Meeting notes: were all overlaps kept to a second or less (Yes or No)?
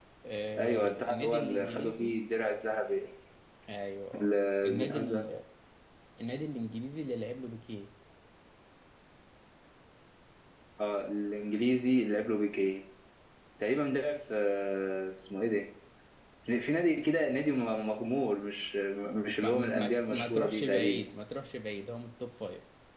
No